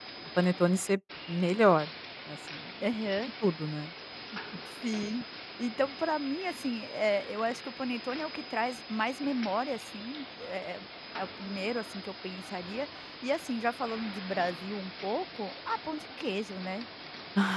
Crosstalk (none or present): none